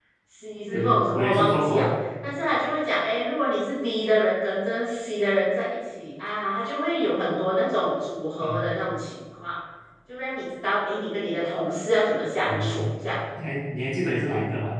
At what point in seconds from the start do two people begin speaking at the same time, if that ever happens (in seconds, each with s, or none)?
0.6 s